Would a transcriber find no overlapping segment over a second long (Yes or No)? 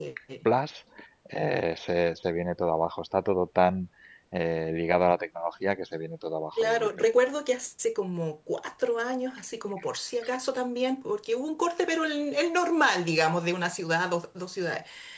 Yes